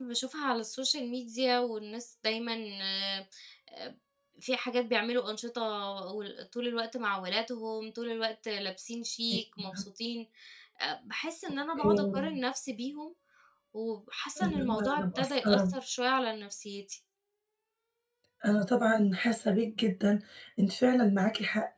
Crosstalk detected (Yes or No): Yes